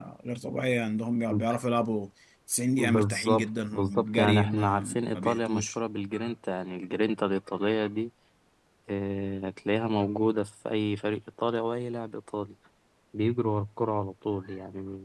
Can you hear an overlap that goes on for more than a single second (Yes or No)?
Yes